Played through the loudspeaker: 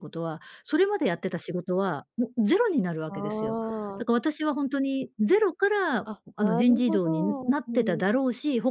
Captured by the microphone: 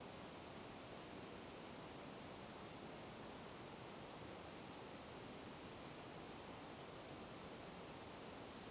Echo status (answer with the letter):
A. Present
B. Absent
B